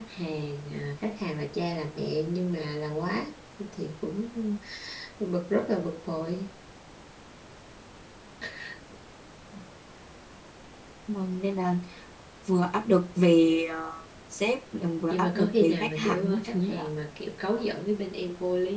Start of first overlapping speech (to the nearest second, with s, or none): 15 s